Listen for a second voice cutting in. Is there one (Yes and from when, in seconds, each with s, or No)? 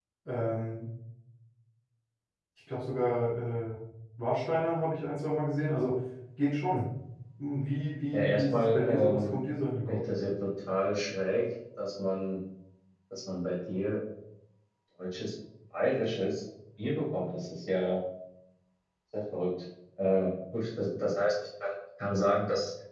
Yes, from 8.1 s